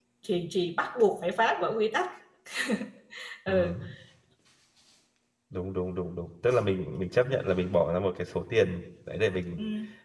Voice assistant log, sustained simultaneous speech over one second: none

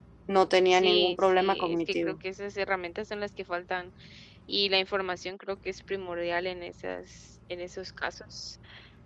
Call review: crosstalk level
present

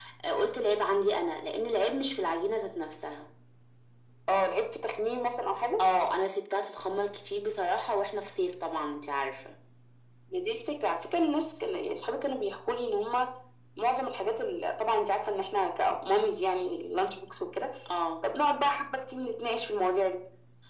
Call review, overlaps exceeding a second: none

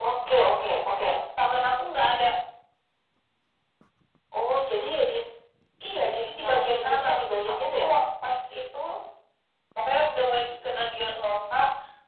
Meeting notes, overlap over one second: present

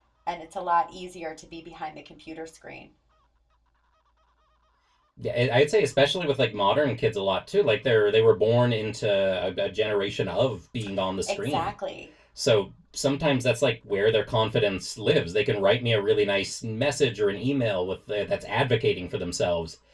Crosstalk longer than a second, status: none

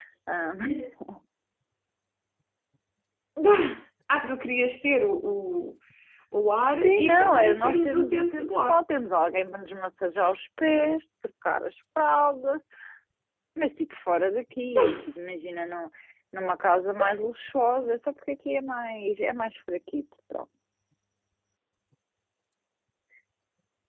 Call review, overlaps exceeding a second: present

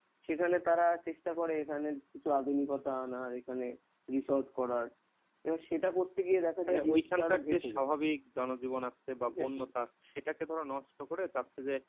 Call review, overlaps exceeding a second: present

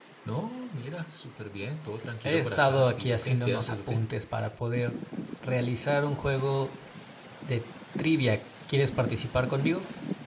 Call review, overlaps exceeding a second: present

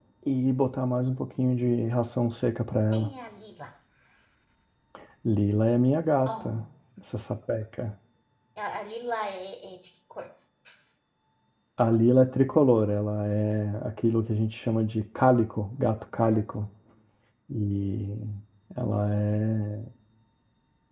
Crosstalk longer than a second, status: none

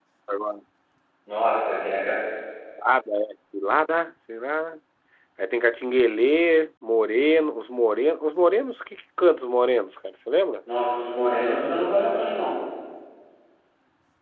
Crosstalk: none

